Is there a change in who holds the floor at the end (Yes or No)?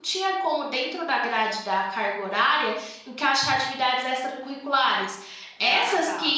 No